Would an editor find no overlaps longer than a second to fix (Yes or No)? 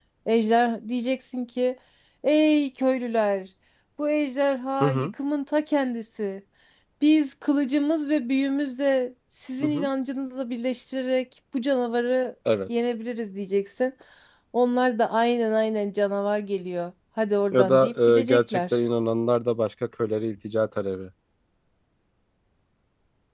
No